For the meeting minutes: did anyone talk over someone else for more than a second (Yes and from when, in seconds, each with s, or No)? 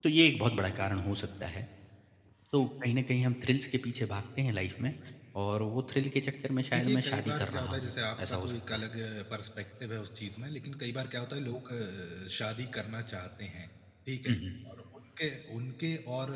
Yes, from 6.7 s